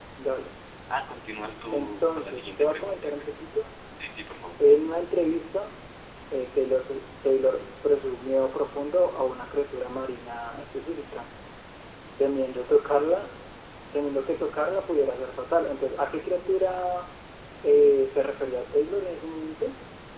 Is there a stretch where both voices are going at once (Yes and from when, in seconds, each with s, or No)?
Yes, from 1.7 s